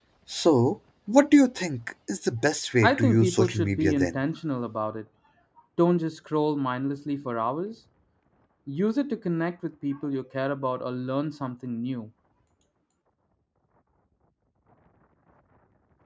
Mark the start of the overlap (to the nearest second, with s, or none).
3 s